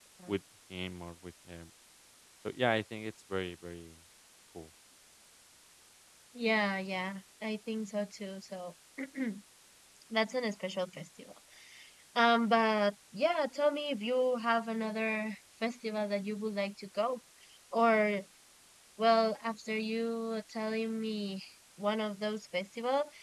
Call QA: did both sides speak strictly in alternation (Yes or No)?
Yes